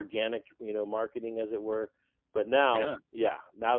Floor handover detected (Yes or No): No